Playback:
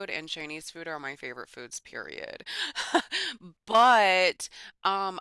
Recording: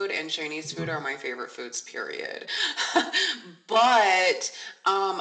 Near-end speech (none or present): present